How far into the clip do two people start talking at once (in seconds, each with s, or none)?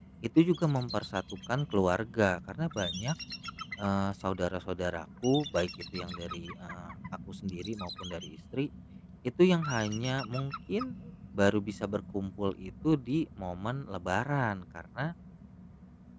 none